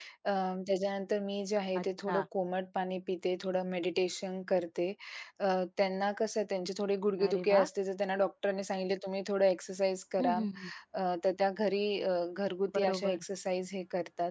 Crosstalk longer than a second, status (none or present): none